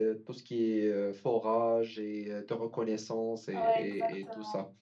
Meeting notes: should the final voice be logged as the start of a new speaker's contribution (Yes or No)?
Yes